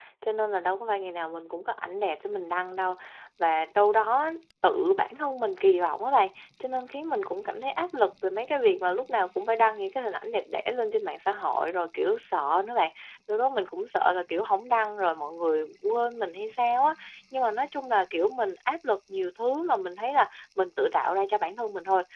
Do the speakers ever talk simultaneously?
No

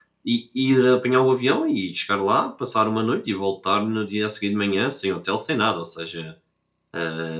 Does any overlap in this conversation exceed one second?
No

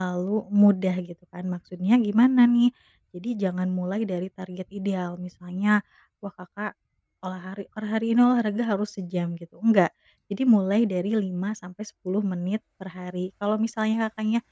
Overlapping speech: No

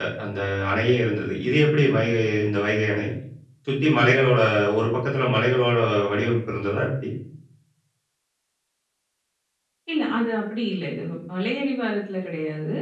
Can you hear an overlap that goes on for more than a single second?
No

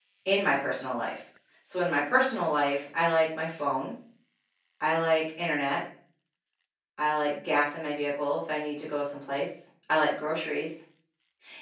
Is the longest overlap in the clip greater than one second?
No

